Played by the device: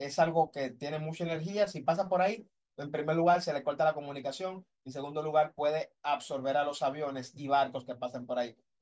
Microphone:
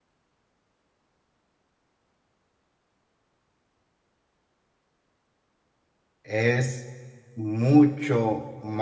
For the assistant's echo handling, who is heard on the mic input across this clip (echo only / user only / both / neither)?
user only